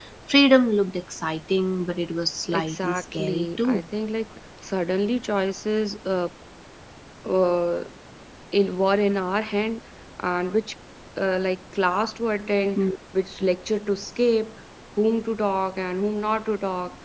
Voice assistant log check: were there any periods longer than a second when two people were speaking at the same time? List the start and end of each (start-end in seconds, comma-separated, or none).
2.5-3.8